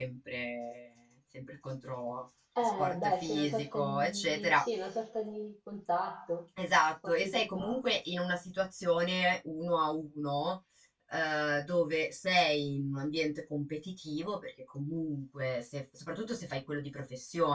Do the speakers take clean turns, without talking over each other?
No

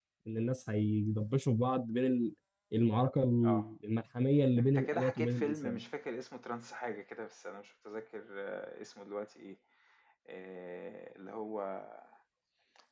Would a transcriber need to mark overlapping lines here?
Yes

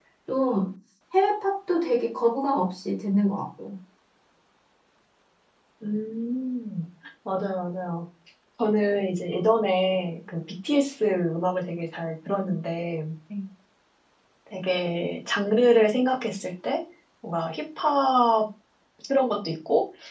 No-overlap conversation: Yes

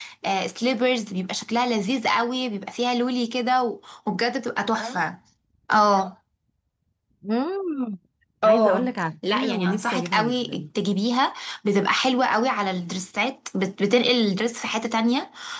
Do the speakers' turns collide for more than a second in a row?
Yes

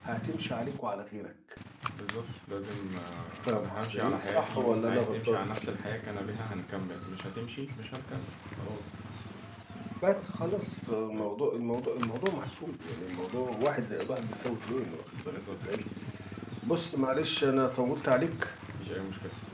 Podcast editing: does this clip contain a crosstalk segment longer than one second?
Yes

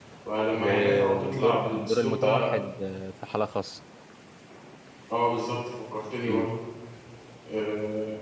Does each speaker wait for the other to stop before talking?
No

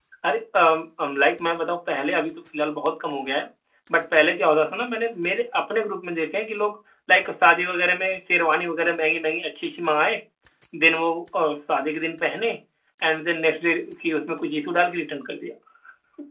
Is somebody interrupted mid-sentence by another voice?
No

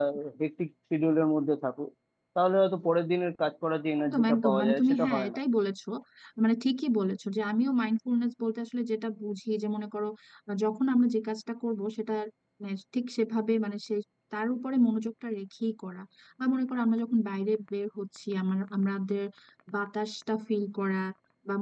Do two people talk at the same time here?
Yes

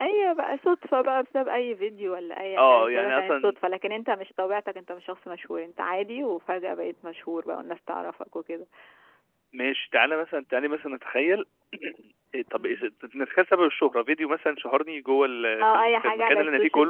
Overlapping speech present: Yes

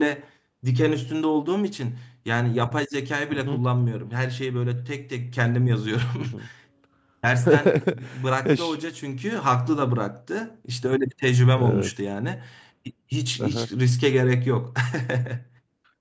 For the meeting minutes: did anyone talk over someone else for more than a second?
No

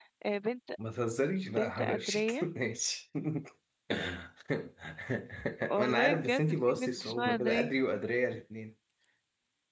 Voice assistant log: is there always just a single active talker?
No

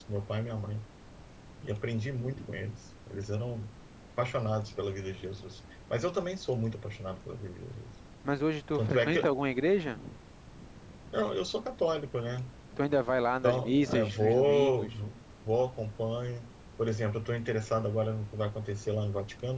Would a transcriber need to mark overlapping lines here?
Yes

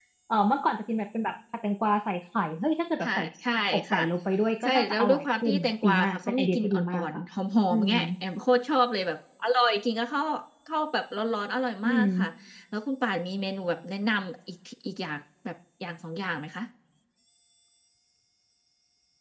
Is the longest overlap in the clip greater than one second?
Yes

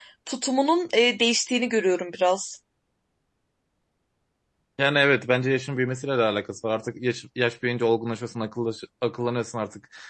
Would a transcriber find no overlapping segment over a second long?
Yes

